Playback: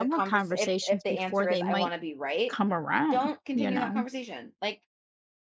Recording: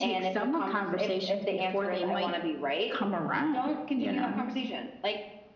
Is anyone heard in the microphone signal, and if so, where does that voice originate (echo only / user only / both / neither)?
echo only